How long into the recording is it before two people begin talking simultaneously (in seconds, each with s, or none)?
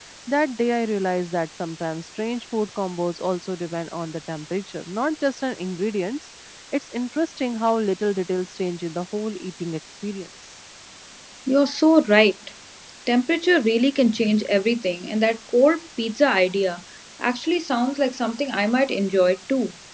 none